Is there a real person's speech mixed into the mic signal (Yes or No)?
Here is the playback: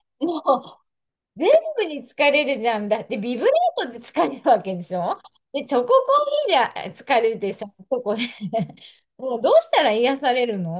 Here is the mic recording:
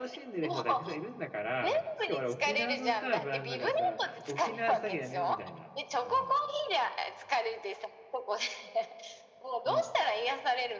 Yes